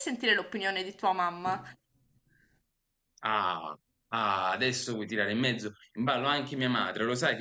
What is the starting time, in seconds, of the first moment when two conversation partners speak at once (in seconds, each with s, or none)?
none